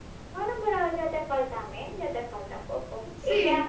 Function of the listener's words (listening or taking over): listening